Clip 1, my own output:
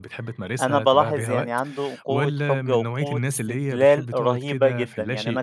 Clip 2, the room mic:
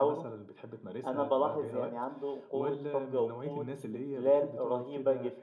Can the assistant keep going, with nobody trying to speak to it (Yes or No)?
Yes